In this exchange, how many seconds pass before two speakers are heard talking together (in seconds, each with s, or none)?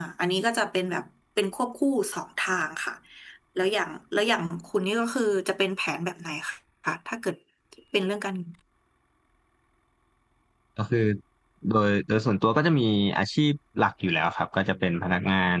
none